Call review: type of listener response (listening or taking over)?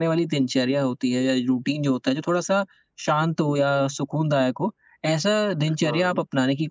listening